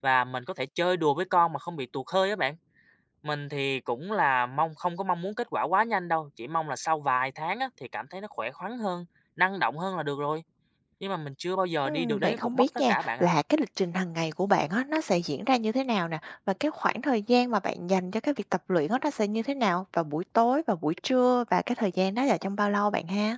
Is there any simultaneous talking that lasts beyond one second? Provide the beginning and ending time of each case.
11.8-13.3

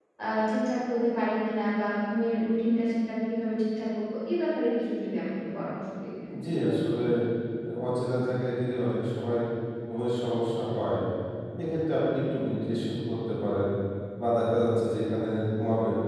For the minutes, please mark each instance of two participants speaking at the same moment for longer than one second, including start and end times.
none

